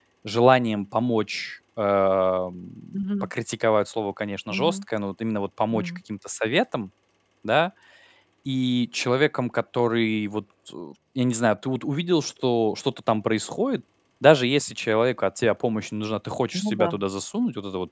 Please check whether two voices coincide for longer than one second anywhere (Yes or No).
No